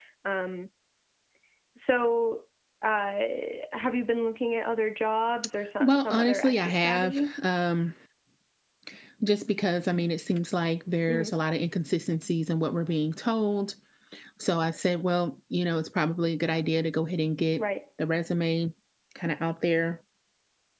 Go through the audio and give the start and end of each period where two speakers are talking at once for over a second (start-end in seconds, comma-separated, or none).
5.8-7.3